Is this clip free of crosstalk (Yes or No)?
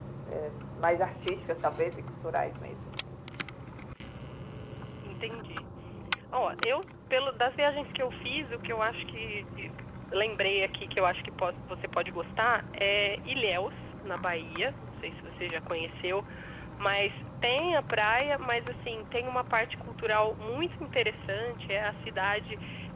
Yes